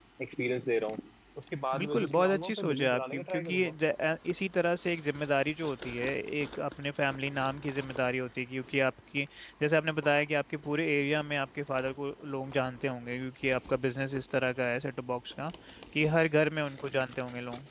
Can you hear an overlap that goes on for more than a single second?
Yes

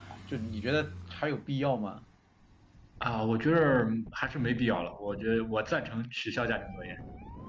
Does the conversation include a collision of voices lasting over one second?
No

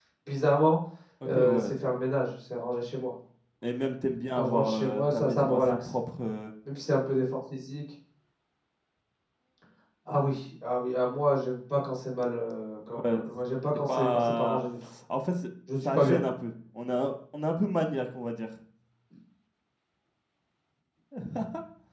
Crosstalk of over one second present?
Yes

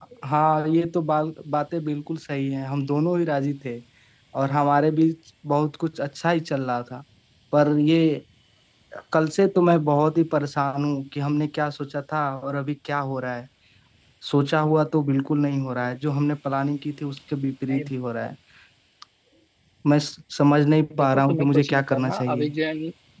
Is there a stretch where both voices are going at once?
Yes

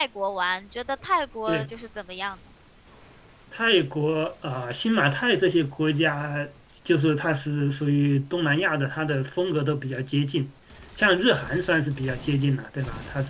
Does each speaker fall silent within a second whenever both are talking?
Yes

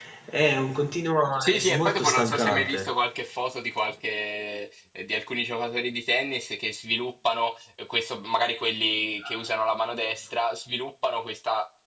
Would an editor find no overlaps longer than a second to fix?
No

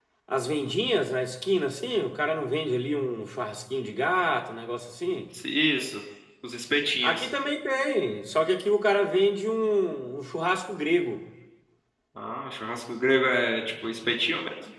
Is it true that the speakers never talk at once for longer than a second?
Yes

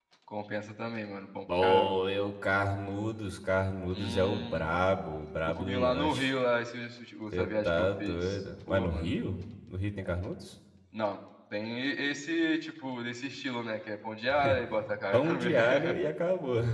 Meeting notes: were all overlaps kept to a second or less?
No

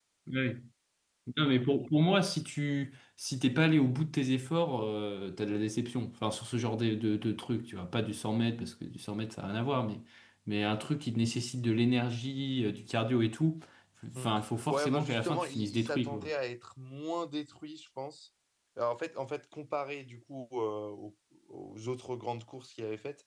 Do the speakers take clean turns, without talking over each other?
No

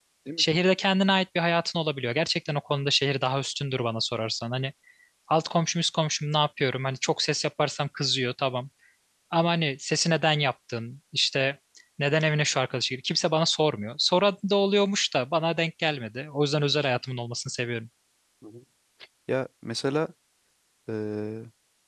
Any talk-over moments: No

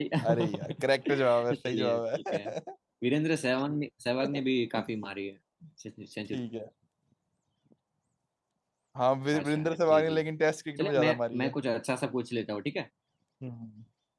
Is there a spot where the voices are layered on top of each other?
Yes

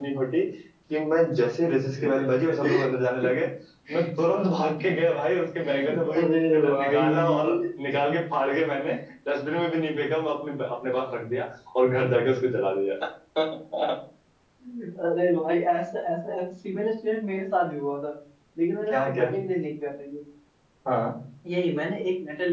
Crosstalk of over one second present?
Yes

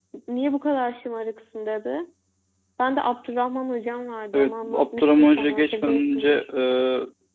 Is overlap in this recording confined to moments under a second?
No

